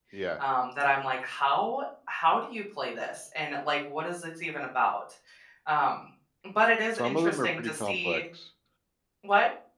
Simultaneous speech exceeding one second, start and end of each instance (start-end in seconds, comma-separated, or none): 7.0-8.2